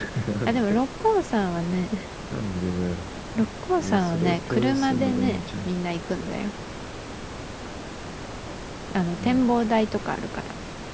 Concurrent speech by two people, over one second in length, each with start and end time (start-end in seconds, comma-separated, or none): 3.8-5.7